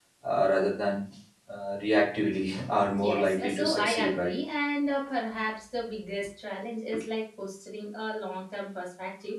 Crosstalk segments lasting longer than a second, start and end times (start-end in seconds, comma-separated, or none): 3.0-4.3